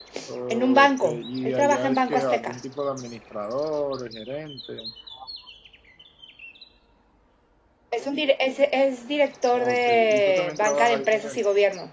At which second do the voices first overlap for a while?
0.5 s

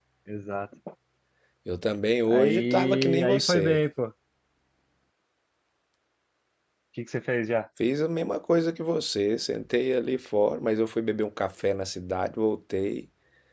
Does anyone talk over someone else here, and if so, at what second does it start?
2.3 s

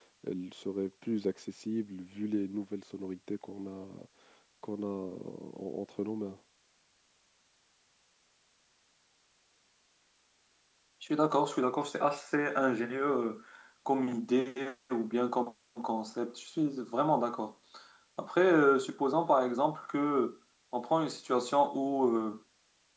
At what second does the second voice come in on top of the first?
none

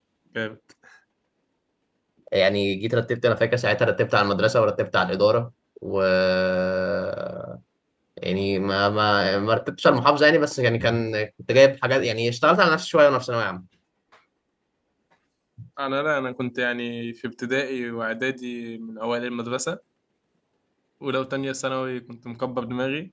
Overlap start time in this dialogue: none

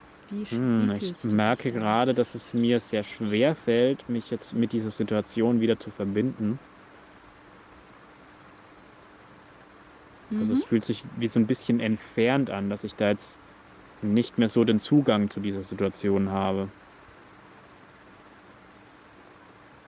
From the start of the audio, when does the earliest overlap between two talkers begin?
0.5 s

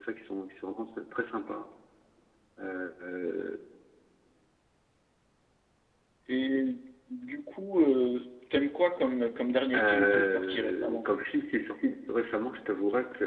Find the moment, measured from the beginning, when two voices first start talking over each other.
9.7 s

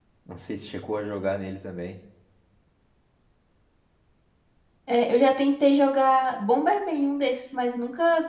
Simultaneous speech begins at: none

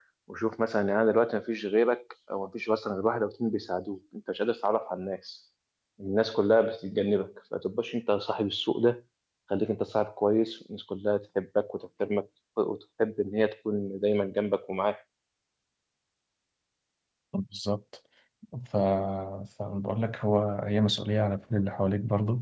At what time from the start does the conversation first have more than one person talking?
none

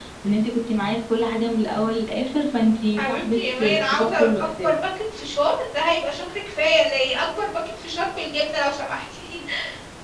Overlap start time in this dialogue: 3.0 s

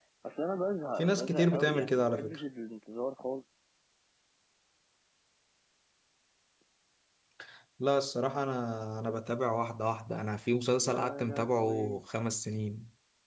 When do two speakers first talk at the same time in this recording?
1.0 s

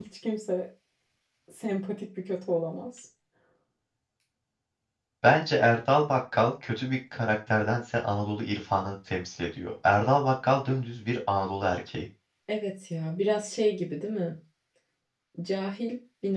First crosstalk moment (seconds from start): none

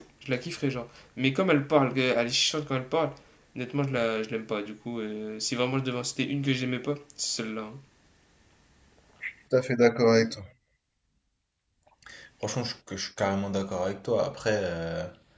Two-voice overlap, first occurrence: none

